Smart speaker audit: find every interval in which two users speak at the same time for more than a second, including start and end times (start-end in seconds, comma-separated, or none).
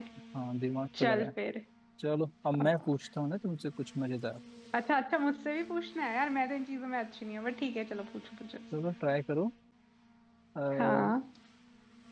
none